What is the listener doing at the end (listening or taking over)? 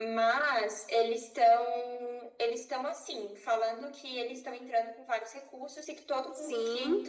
listening